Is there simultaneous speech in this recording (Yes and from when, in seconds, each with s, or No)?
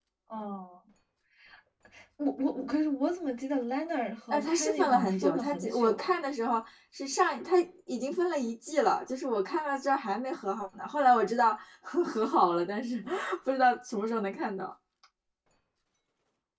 Yes, from 4.3 s